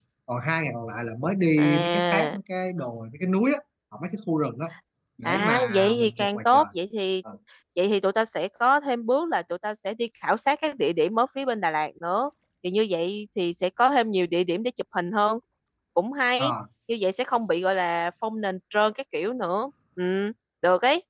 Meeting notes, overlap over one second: present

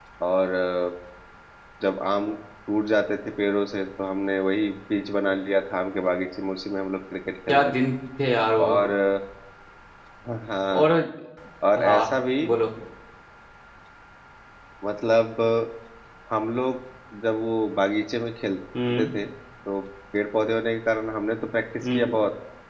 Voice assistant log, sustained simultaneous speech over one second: none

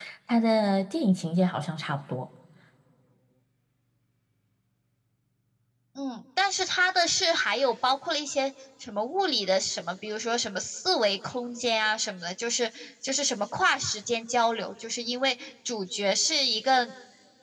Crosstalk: none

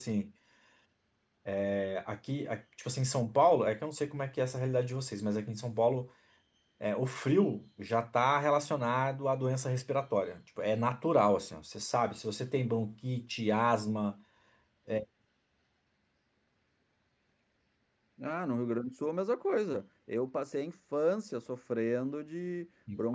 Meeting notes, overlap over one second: none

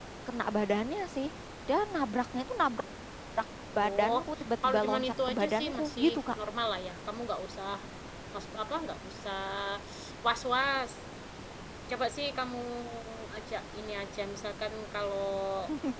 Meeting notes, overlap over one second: present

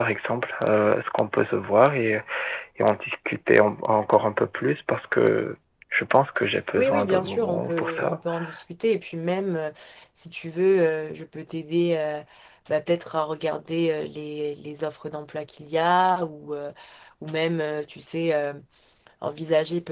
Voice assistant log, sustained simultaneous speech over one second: present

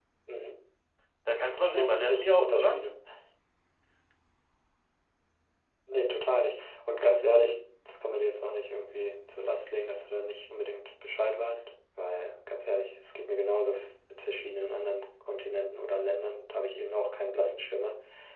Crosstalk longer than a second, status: present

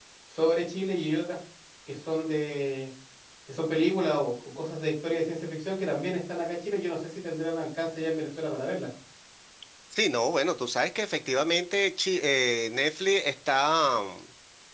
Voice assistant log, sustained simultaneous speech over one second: none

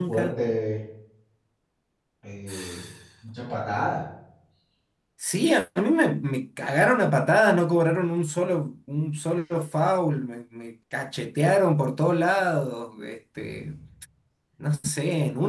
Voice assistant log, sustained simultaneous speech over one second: none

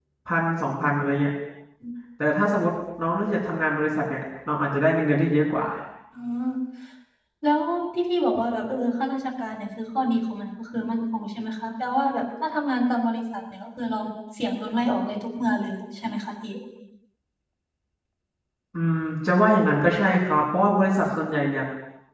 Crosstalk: none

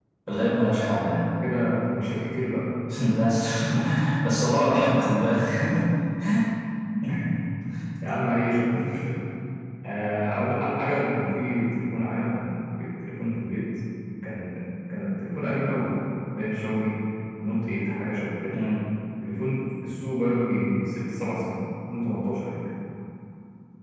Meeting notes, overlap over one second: none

